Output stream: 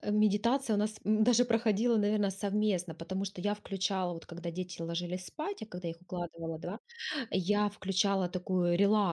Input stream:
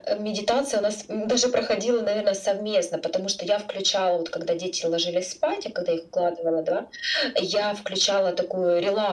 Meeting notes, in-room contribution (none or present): none